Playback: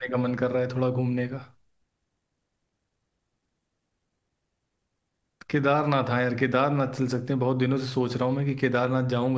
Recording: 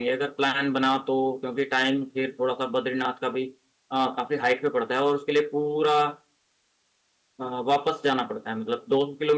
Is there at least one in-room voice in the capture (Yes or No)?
Yes